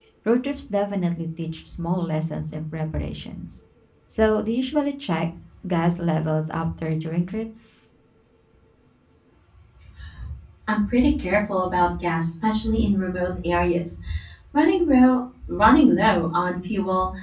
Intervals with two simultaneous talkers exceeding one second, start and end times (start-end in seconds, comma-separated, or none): none